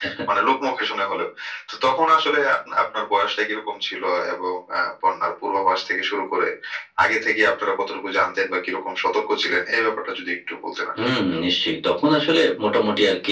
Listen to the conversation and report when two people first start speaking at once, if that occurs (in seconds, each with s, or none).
none